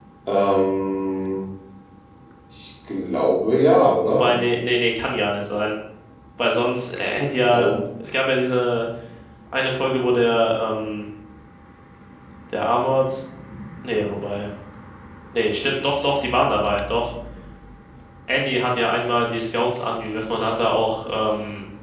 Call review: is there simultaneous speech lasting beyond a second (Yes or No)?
No